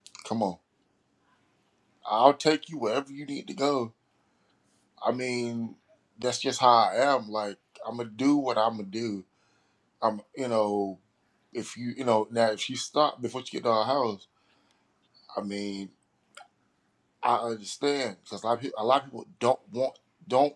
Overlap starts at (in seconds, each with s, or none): none